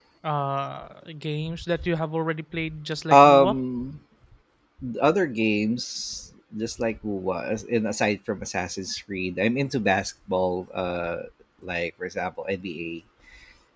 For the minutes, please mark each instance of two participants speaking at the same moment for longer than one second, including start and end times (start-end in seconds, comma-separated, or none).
none